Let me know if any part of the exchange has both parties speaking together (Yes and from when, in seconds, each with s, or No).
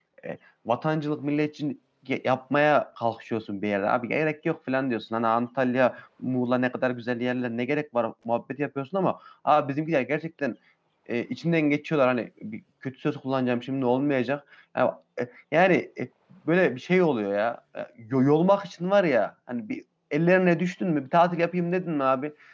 No